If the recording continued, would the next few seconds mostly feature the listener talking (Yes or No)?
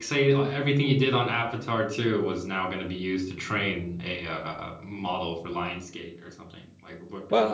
Yes